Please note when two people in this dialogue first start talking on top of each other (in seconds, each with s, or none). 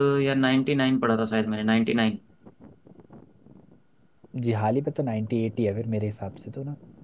none